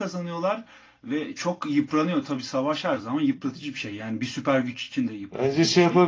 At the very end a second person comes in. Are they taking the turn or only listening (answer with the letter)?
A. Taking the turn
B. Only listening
A